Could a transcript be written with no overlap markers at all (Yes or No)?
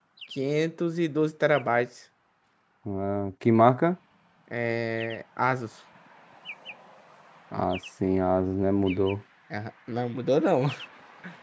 Yes